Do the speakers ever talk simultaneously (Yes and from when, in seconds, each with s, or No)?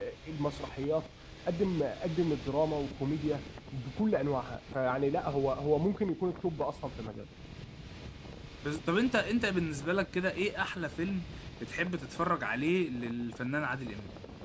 No